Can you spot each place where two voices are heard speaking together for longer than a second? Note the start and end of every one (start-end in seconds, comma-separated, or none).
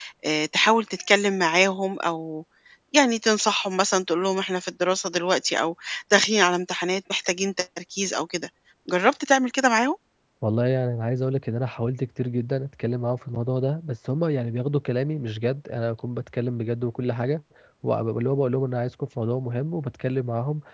none